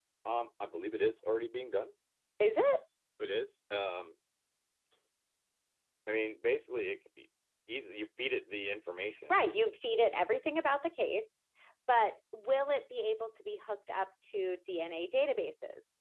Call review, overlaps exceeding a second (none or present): none